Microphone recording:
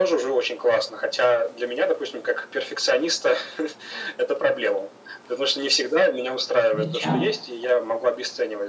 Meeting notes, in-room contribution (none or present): present